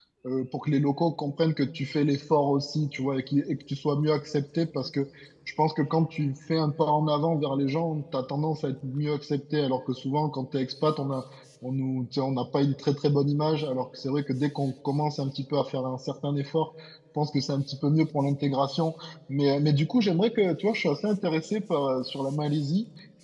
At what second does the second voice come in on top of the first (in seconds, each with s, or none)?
none